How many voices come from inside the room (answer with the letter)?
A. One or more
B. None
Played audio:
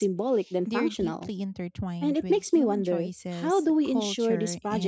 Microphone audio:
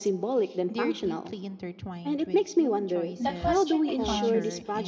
A